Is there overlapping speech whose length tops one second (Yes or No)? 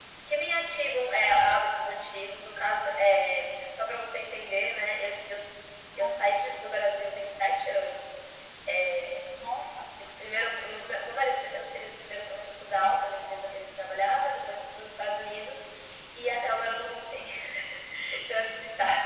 No